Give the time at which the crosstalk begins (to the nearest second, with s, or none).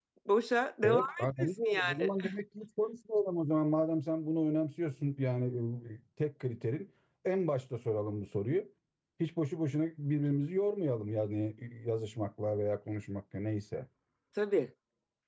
1 s